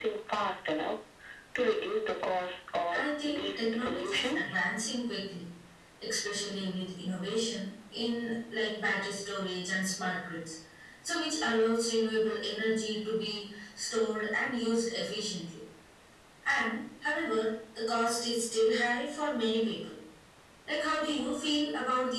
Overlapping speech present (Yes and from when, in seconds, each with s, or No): Yes, from 2.9 s